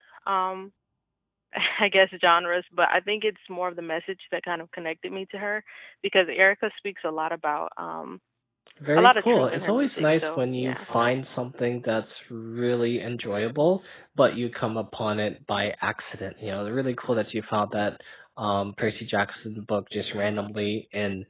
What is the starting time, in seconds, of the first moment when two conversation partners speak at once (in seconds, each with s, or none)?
9.0 s